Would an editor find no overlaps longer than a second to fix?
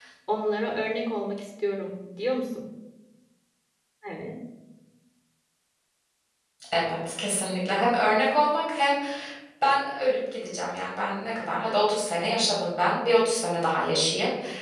Yes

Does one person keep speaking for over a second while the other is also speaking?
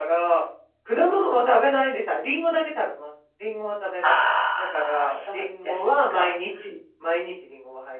Yes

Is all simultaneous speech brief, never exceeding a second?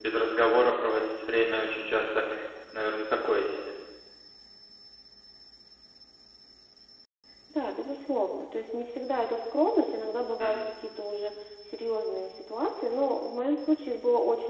Yes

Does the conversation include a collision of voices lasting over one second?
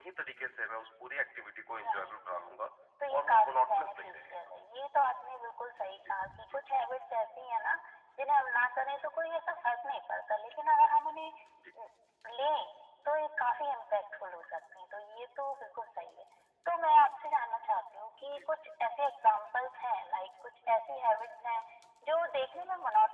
Yes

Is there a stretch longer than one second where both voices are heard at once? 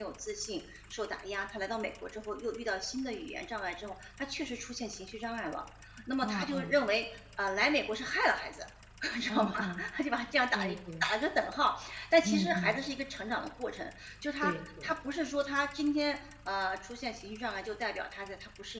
No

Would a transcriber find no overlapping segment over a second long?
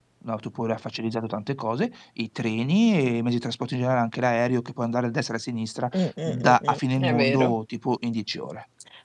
No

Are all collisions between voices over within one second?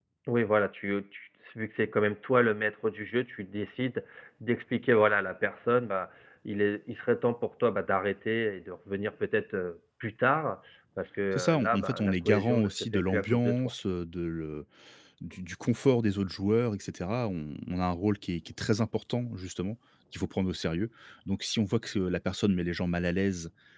No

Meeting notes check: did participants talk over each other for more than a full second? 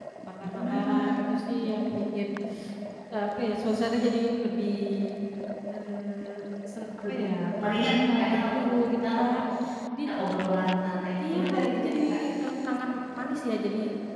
Yes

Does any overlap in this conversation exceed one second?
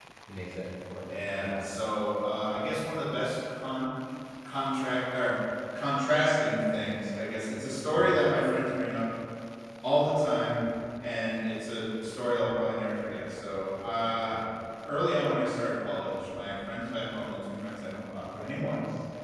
No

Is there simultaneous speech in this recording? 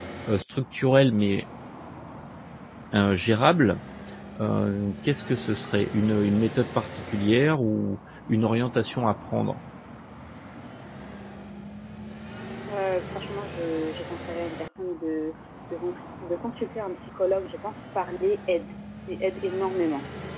No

